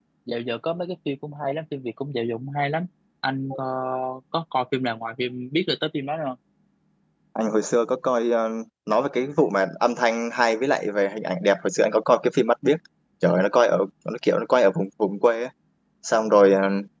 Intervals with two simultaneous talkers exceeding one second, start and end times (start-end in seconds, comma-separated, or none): none